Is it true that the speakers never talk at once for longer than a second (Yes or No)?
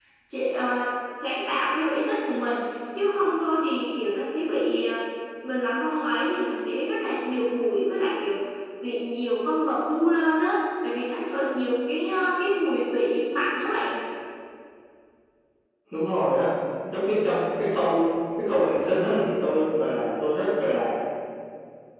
Yes